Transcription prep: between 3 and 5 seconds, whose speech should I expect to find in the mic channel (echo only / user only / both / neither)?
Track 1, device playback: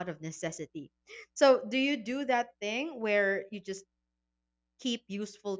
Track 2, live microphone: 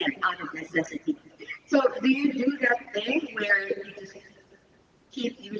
echo only